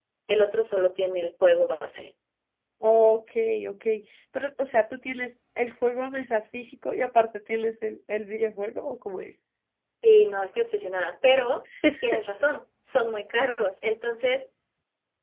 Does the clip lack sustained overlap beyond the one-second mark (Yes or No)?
Yes